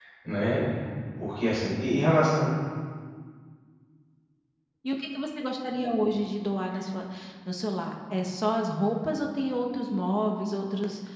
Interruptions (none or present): none